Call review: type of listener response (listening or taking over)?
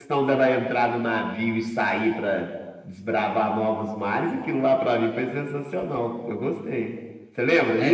taking over